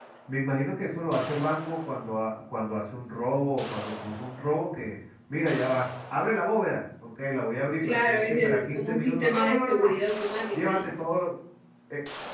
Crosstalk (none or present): present